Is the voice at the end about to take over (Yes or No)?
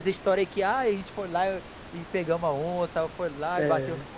No